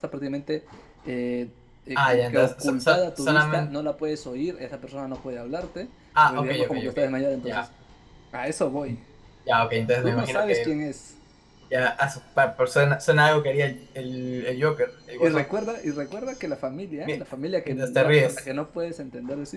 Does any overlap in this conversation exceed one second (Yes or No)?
Yes